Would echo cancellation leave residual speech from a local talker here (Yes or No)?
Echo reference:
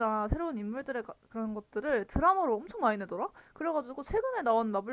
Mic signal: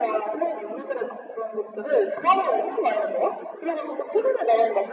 No